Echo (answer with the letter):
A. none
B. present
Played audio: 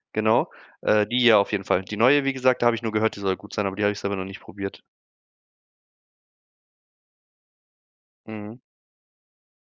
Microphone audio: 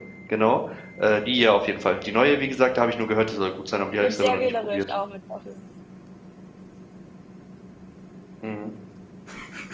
B